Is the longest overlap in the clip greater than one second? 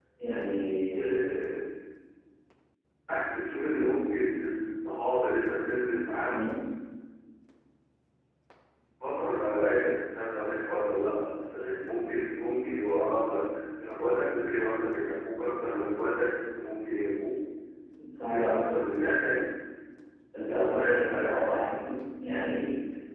Yes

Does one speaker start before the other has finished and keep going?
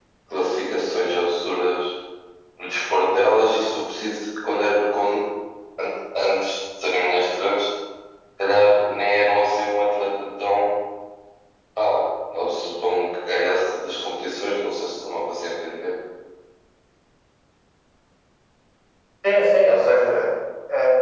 No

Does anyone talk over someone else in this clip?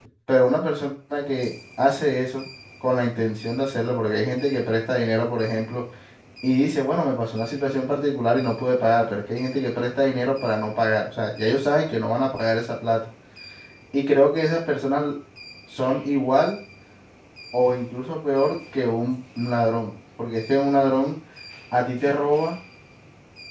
No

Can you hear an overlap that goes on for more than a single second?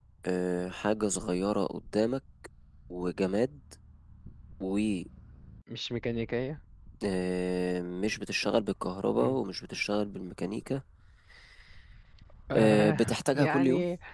Yes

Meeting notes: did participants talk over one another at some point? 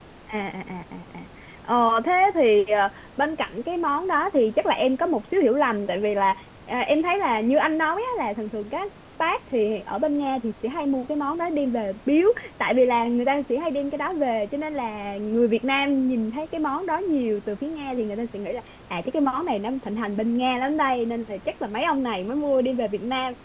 No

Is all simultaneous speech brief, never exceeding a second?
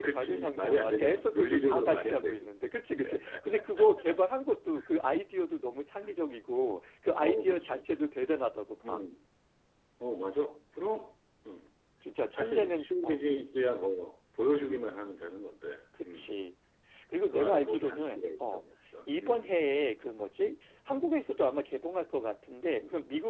No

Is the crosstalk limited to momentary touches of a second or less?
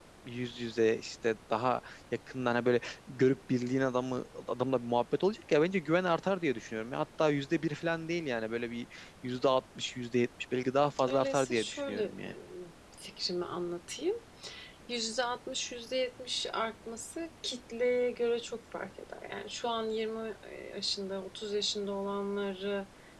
No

